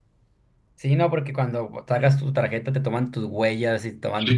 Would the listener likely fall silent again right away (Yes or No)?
No